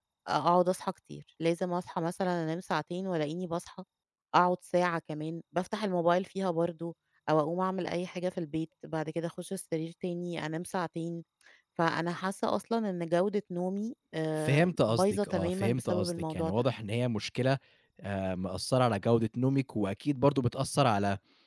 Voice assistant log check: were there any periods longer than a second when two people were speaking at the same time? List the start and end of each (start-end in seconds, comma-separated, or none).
14.4-16.6